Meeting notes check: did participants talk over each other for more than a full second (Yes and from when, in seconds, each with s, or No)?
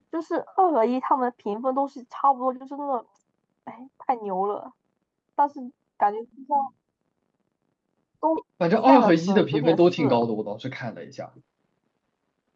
Yes, from 8.8 s